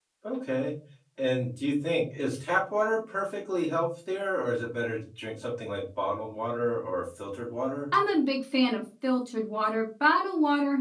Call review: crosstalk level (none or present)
none